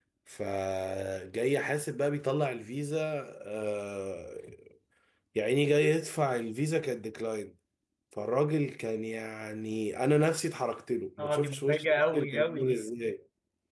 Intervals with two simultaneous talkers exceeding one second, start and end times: 11.2-12.8

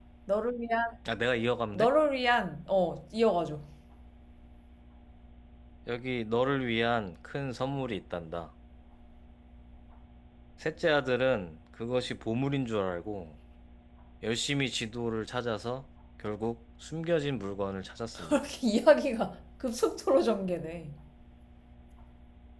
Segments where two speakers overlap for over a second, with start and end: none

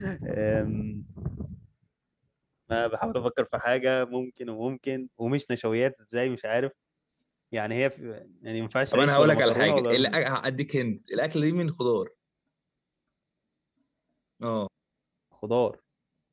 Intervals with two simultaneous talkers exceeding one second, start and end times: 8.9-10.3

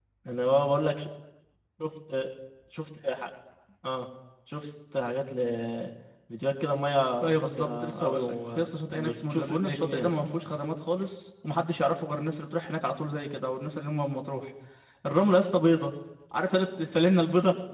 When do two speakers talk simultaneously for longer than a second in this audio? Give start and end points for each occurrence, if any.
7.2-10.2

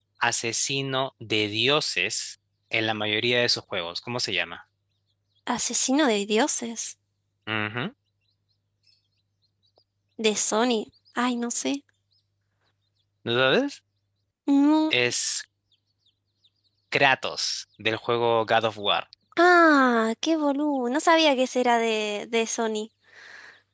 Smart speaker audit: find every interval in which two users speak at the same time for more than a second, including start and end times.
none

